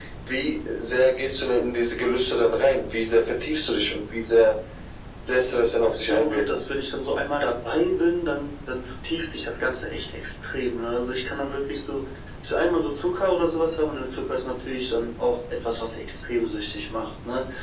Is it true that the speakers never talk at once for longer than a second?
No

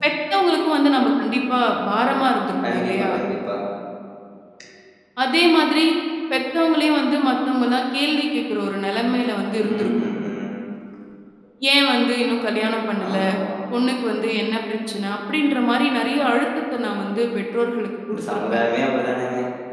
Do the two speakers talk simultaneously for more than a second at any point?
No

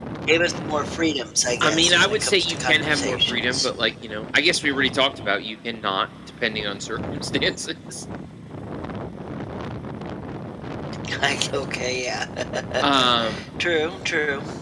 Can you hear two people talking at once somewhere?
Yes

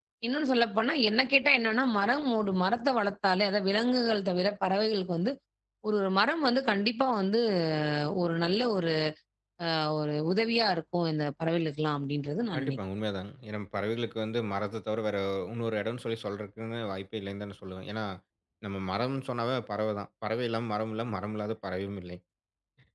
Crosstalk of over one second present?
No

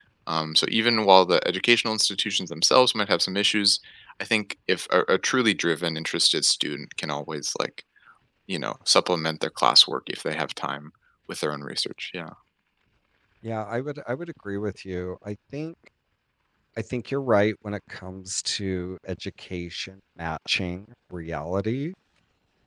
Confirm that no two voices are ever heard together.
Yes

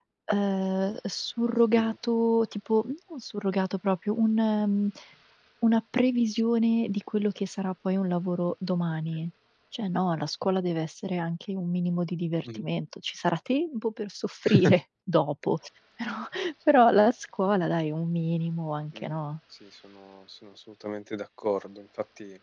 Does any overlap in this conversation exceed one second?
No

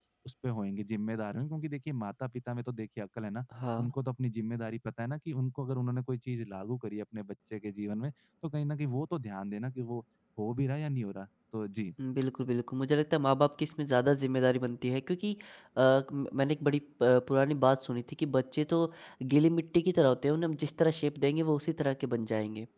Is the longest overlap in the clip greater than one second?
No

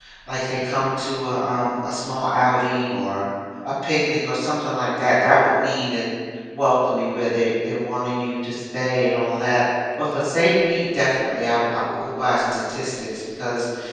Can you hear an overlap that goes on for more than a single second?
No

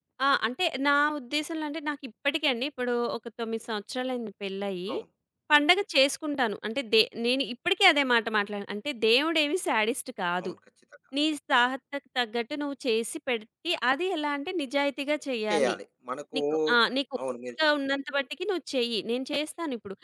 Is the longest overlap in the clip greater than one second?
No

